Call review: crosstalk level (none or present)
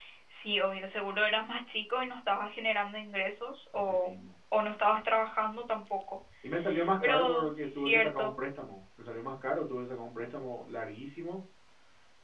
present